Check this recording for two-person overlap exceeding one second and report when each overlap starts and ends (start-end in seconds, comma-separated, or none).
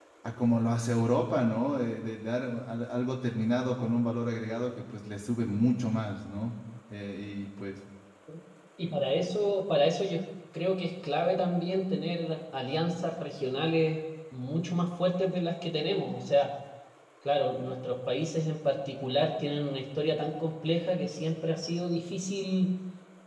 none